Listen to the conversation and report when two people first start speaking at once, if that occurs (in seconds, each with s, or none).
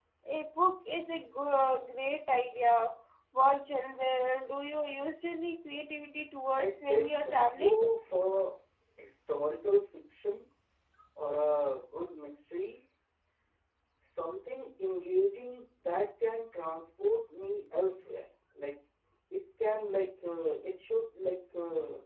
6.5 s